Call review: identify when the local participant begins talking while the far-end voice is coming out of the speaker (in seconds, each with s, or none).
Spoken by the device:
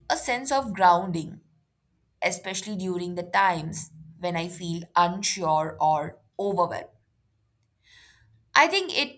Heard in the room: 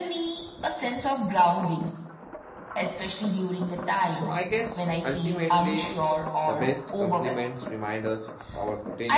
4.1 s